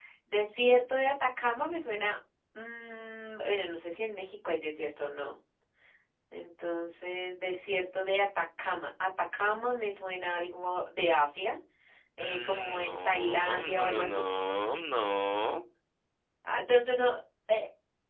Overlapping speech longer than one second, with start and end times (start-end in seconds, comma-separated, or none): 12.2-14.2